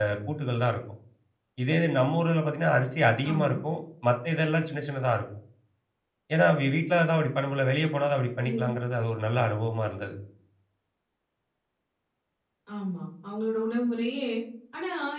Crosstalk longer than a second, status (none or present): none